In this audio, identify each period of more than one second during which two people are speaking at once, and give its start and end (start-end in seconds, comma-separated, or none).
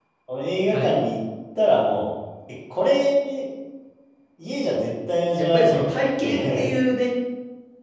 5.4-6.7